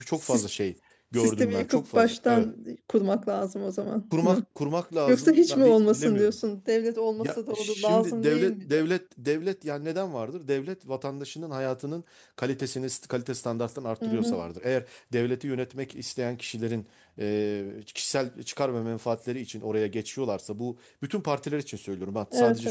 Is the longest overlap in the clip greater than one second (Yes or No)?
Yes